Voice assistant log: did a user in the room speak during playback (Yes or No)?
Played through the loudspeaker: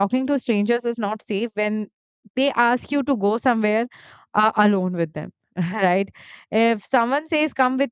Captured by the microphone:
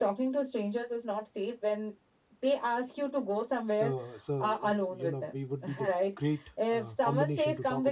Yes